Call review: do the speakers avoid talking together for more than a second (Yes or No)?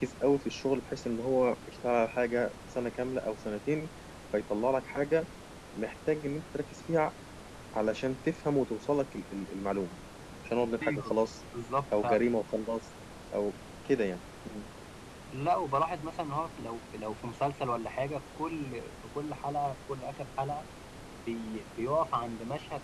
Yes